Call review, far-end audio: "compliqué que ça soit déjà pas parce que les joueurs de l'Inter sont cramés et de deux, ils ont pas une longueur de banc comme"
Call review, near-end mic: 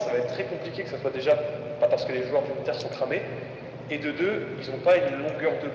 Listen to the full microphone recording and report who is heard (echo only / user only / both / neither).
echo only